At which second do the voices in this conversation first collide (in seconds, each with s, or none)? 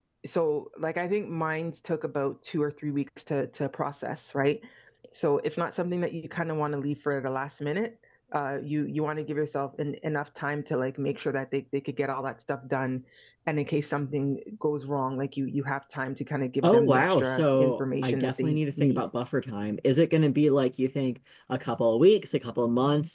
16.6 s